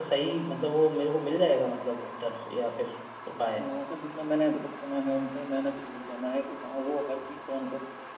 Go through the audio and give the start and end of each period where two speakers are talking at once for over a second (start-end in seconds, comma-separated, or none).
none